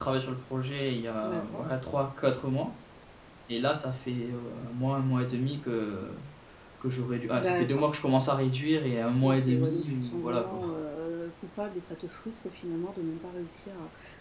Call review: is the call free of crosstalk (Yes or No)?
No